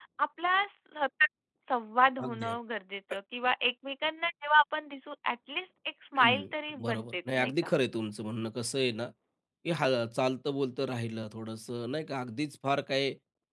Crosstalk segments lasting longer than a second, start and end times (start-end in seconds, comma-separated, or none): 6.2-7.7